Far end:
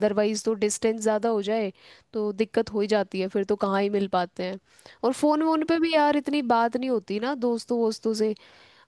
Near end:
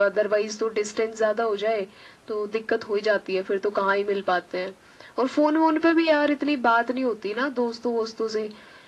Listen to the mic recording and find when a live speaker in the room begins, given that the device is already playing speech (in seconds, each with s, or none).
none